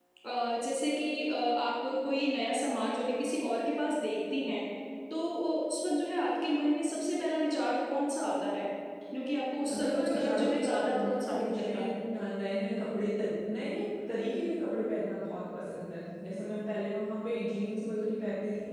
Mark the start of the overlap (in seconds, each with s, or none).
9.7 s